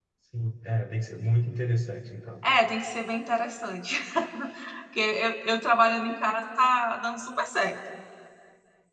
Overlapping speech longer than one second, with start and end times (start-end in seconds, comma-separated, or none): none